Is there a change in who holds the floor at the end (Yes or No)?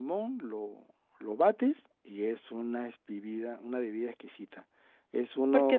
Yes